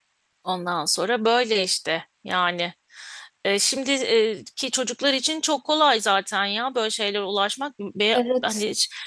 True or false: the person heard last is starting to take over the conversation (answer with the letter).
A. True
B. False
B